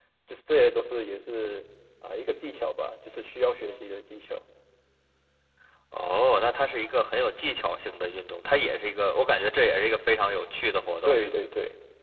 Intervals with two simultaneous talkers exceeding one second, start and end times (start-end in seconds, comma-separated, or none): none